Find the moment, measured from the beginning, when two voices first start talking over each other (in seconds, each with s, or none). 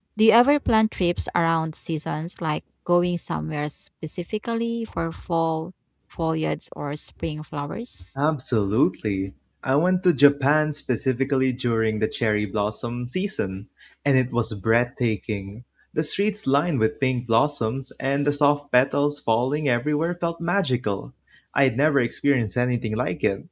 none